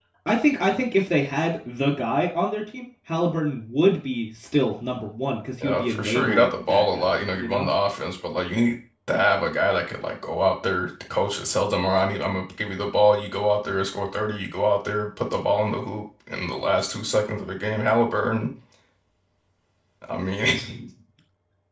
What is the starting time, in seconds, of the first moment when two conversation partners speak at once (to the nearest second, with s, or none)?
6 s